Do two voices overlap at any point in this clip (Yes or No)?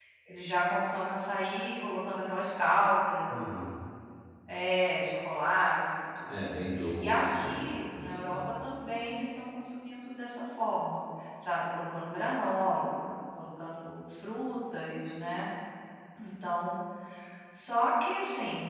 Yes